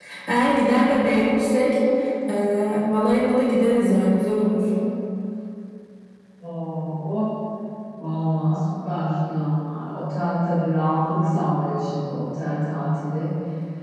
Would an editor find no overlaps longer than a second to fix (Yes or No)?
Yes